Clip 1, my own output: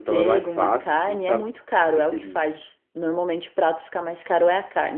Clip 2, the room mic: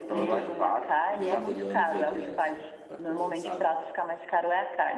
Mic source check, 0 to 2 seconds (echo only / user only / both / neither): both